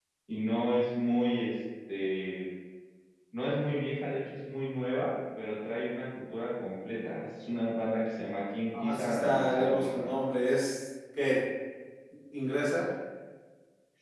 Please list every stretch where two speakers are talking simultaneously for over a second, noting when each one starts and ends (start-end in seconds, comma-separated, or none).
8.7-10.1